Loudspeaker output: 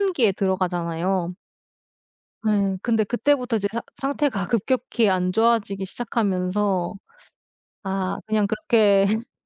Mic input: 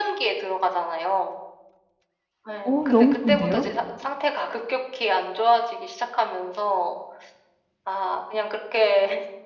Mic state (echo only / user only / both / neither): both